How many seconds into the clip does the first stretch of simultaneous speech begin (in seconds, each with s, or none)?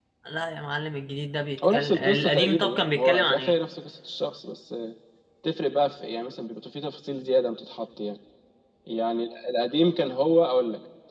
1.6 s